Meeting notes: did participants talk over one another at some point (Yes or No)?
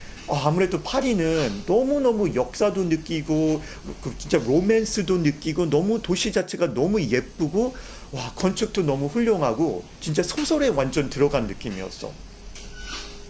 No